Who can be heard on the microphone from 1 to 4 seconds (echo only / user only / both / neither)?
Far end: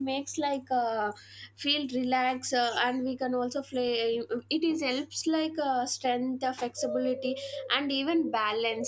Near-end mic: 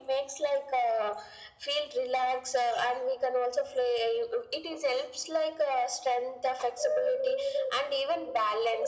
echo only